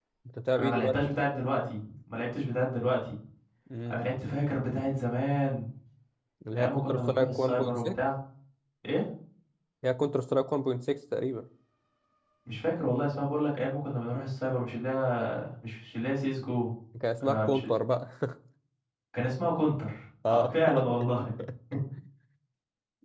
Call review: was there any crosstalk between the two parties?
Yes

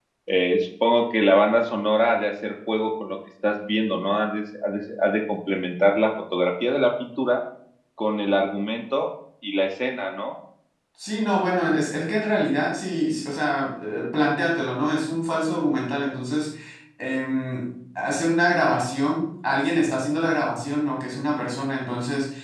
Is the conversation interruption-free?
Yes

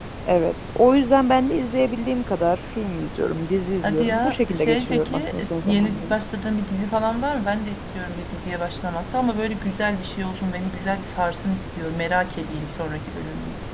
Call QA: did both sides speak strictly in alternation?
No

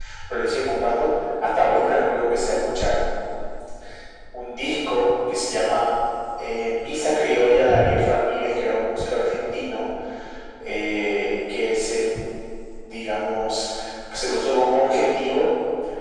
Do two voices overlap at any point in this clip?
No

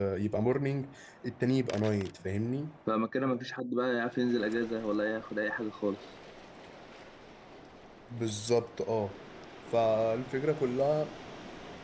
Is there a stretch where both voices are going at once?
No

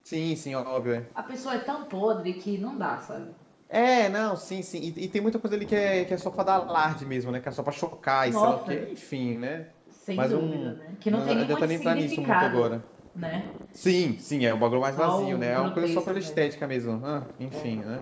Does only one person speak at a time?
No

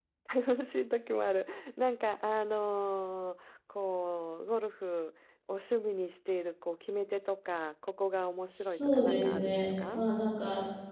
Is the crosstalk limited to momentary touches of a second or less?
No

